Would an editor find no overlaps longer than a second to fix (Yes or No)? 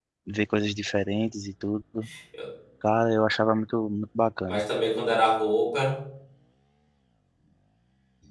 Yes